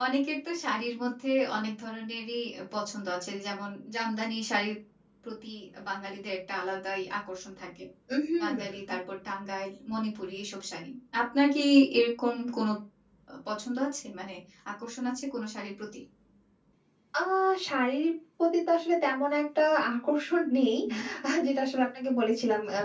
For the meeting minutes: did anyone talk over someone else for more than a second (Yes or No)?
No